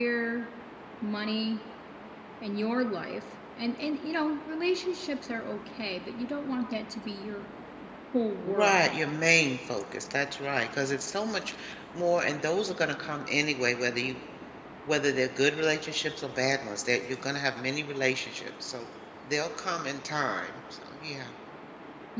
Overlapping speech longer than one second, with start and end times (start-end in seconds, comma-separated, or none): none